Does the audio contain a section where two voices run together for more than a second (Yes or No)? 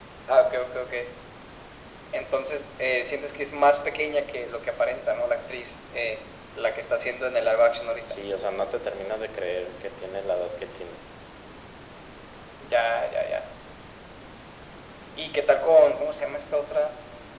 No